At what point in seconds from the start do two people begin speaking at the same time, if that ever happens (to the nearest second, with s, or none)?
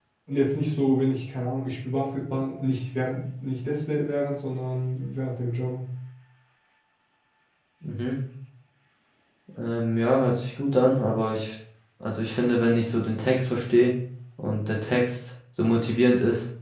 none